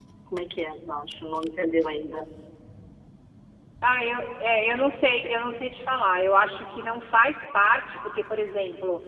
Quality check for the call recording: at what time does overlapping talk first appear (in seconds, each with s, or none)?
none